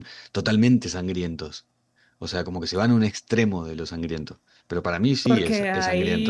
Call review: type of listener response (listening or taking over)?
taking over